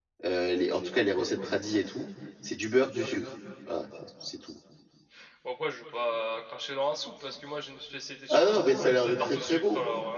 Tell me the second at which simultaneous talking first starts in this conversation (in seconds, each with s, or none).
8.3 s